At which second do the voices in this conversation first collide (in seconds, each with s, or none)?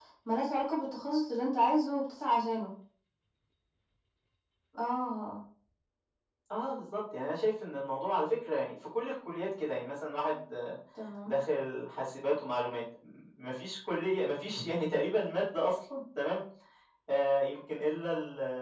none